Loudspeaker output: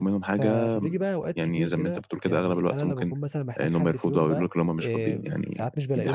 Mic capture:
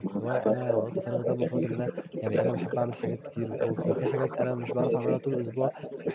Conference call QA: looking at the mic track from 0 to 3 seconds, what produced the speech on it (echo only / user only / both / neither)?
both